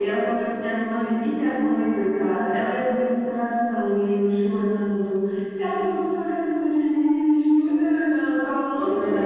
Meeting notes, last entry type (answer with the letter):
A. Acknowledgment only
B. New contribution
B